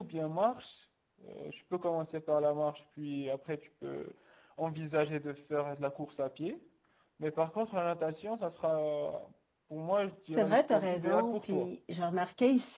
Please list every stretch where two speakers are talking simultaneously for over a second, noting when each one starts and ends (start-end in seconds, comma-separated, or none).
10.4-11.7